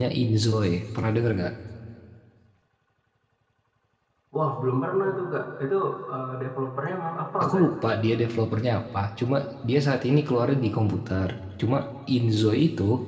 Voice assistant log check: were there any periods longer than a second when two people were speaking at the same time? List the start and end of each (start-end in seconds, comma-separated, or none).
none